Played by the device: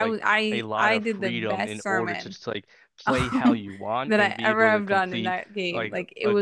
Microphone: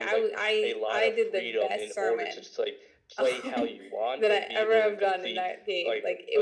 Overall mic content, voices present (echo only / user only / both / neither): echo only